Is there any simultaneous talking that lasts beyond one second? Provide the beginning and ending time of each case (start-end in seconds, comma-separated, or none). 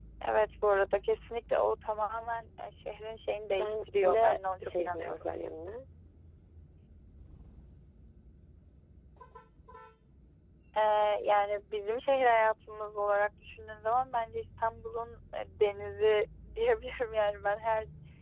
3.6-5.3